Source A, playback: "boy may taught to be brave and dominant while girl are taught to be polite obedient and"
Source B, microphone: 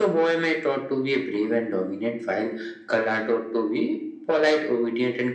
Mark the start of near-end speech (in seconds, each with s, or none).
none